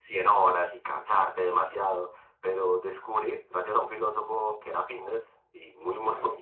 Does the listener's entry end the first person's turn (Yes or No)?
No